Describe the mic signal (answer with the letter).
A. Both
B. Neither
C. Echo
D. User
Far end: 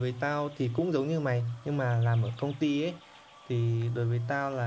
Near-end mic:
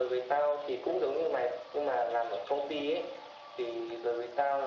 C